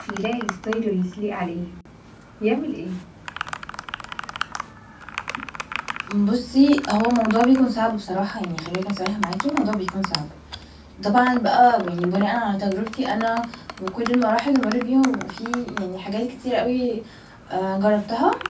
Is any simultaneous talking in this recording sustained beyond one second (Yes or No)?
No